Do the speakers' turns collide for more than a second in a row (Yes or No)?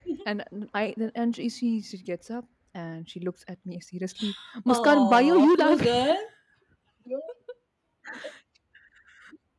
Yes